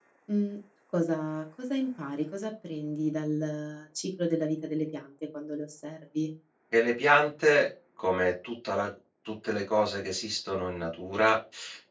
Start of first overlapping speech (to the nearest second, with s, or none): none